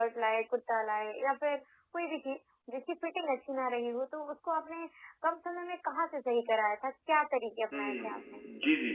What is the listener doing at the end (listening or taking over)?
taking over